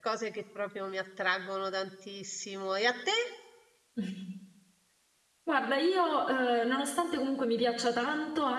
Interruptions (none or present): none